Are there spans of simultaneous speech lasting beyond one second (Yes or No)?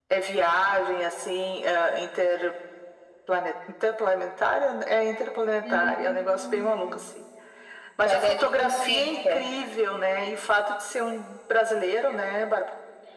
Yes